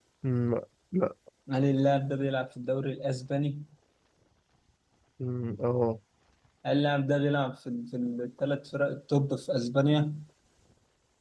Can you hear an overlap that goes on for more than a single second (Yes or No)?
No